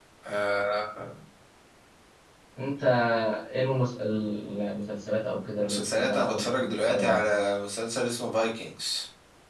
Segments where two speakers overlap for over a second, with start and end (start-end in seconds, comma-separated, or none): 5.6-7.3